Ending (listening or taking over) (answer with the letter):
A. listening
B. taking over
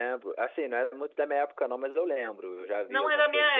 B